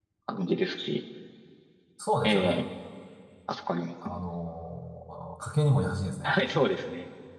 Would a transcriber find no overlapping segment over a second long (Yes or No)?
Yes